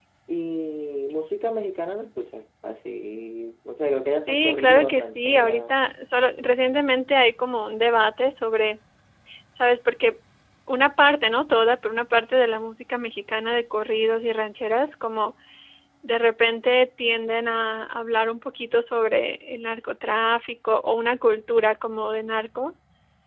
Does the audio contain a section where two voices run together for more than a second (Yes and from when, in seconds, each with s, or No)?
Yes, from 4.3 s